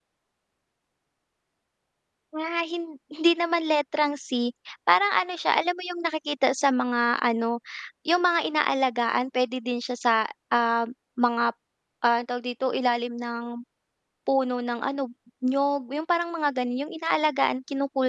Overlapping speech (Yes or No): No